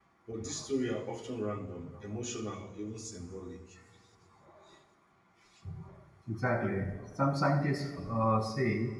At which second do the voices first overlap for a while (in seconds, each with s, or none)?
none